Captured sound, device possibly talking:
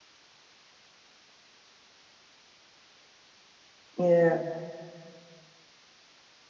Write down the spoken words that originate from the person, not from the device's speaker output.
Yeah.

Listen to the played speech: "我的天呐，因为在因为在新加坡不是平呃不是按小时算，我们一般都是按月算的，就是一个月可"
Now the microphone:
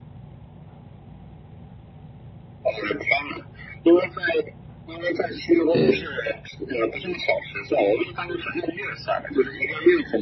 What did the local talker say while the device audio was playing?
对，

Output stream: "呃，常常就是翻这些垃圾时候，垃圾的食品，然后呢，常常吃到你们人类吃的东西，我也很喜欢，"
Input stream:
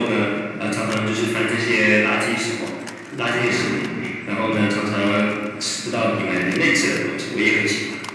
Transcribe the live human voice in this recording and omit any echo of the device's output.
none

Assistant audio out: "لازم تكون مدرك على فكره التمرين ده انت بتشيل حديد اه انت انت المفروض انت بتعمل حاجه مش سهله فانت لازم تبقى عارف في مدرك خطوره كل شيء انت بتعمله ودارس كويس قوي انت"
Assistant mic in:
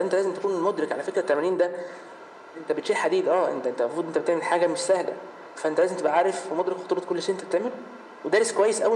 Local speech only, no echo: none

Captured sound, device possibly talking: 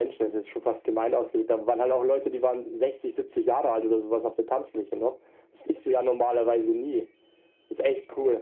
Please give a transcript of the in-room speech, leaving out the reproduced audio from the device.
none

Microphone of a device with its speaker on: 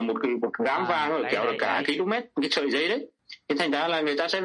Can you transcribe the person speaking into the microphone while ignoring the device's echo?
à đấy đấy đấy

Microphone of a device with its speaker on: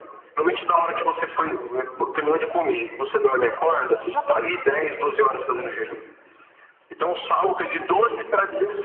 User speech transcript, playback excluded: none

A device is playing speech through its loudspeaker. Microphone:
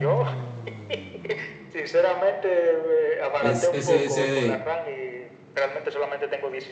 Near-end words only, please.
Es SSD.

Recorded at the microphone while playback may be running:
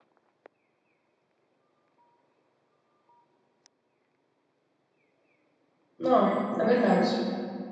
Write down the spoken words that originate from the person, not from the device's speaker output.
Não, é verdade.

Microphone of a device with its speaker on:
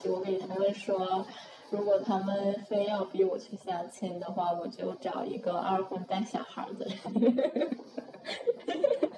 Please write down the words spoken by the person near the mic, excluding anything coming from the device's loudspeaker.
none

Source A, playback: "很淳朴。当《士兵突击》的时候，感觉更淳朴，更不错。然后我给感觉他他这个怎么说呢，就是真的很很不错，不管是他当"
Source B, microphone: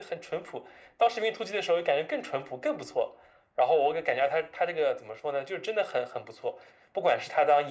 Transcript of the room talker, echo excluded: none

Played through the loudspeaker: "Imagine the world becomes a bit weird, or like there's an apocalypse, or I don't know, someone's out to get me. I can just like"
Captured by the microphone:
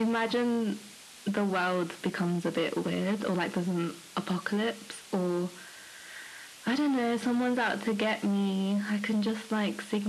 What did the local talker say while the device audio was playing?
none

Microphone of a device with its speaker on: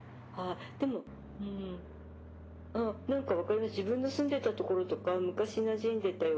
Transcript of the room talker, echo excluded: none

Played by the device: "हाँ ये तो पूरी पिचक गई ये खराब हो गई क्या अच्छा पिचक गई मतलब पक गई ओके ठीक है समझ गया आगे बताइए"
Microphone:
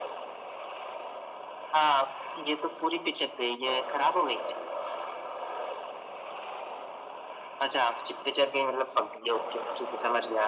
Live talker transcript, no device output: none

